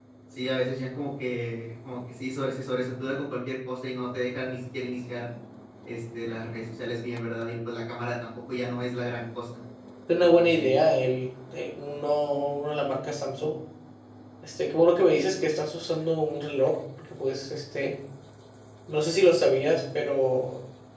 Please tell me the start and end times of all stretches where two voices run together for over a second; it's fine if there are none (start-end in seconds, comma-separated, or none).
none